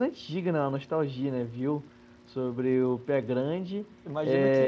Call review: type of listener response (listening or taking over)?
taking over